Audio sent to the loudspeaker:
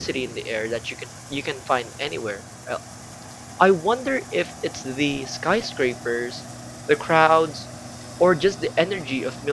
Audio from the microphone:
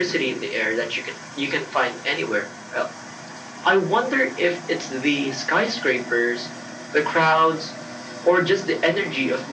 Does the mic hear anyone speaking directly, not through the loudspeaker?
No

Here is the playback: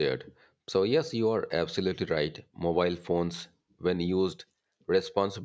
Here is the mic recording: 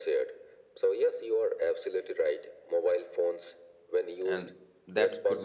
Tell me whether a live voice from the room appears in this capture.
Yes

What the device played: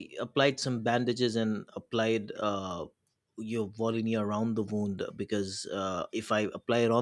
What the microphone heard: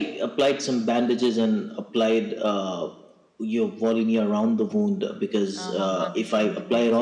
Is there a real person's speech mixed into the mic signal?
Yes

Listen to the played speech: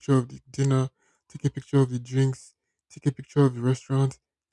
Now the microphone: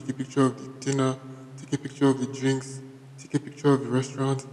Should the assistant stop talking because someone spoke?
No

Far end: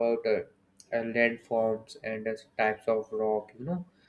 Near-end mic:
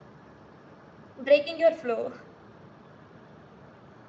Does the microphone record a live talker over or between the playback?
Yes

